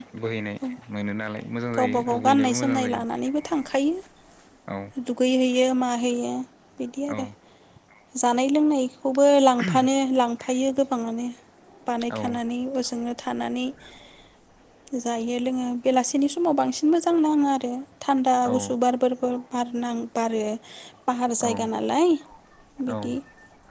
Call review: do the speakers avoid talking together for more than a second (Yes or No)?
No